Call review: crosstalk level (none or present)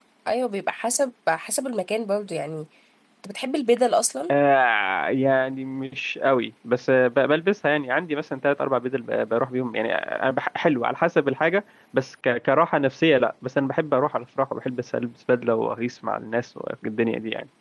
none